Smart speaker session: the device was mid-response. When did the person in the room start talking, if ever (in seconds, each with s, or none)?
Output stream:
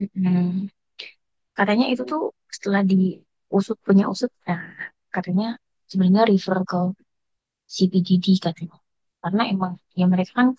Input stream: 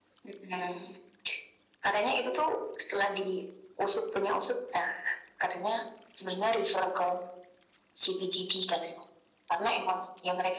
none